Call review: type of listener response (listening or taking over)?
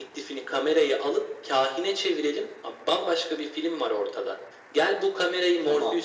listening